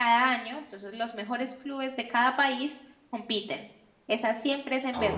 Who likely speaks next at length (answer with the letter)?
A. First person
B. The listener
A